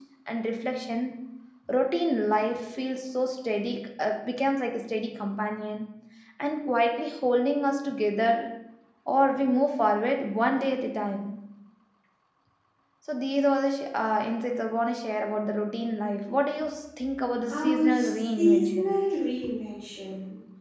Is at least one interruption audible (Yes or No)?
Yes